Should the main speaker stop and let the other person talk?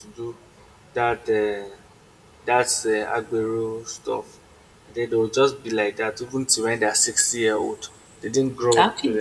Yes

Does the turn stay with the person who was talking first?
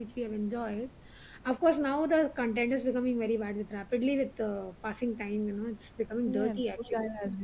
No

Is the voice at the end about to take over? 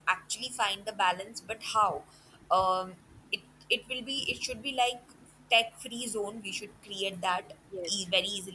No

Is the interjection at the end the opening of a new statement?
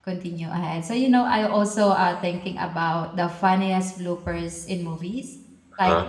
No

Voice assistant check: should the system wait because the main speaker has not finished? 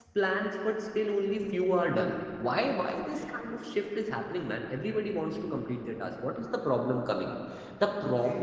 Yes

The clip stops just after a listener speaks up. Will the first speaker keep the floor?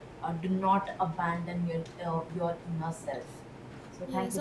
No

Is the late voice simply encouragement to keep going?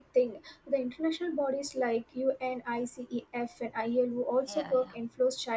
Yes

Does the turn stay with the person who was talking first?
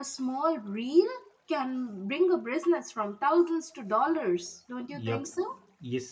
No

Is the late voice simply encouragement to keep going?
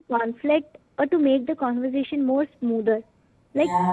Yes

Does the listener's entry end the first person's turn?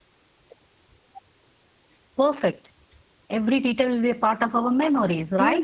Yes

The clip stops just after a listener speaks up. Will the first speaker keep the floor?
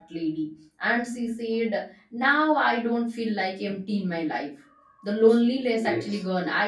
Yes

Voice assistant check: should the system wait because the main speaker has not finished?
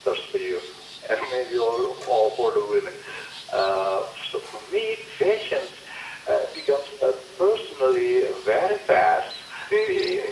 No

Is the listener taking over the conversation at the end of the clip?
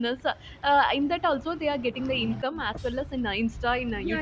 Yes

